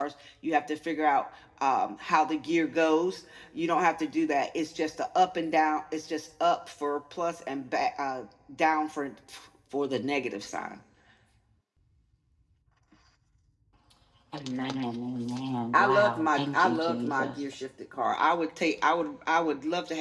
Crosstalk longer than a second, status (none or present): present